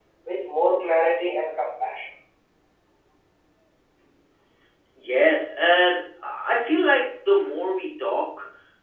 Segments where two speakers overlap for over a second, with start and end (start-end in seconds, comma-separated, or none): none